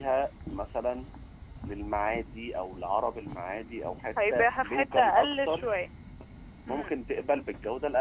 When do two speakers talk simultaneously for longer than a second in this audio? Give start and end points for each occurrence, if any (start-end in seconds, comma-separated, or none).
4.3-5.8